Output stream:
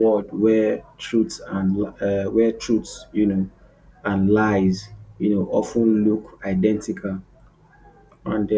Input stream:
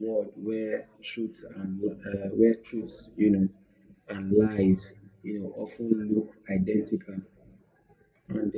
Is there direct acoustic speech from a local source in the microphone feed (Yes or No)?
No